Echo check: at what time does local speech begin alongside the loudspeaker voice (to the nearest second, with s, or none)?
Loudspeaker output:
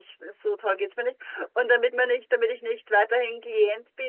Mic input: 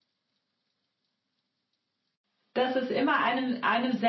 3 s